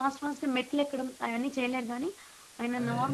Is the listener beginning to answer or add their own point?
No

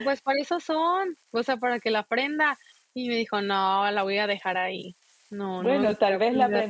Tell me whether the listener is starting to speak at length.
Yes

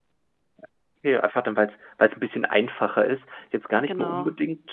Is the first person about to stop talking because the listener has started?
No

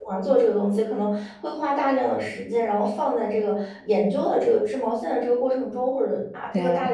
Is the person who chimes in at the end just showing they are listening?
Yes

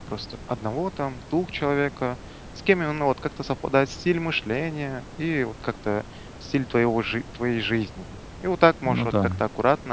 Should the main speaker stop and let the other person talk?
No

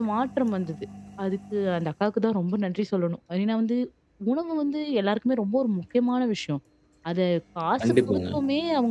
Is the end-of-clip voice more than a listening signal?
No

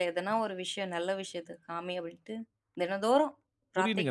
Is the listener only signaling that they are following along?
No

